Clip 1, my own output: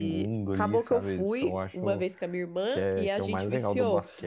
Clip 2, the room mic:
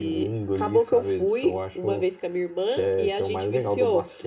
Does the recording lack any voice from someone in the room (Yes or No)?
Yes